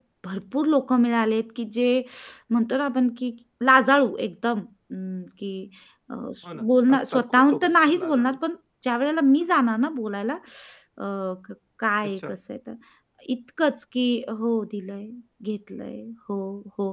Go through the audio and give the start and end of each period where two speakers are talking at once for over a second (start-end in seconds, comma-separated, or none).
6.5-8.4